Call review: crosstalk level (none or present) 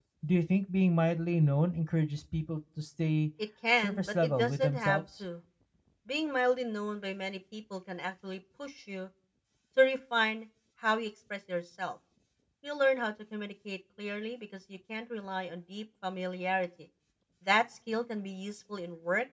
present